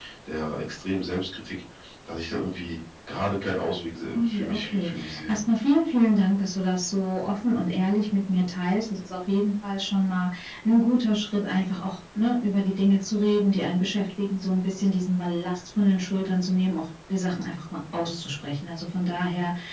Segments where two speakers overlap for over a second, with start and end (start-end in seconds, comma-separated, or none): 4.2-5.4